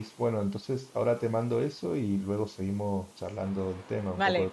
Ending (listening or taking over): taking over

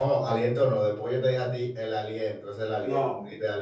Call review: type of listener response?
listening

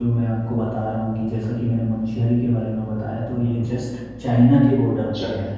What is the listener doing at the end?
taking over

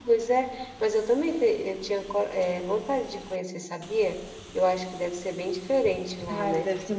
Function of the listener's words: taking over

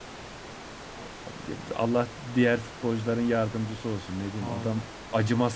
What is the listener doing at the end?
listening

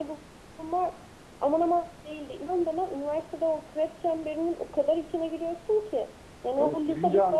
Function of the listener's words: taking over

